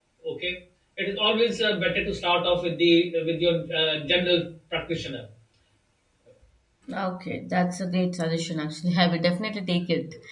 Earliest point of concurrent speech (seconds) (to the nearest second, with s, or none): none